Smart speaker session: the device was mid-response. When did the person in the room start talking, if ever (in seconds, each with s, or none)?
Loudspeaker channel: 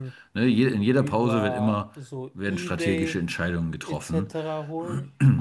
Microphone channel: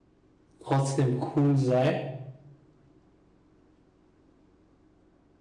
0.6 s